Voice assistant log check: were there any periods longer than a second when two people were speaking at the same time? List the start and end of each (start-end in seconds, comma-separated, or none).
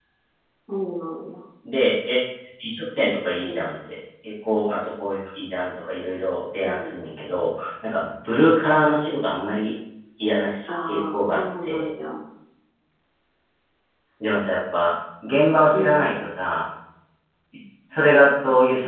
10.7-11.9